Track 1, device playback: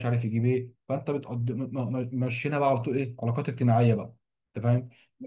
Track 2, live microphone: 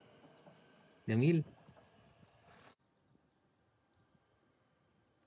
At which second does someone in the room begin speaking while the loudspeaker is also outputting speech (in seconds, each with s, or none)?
1.1 s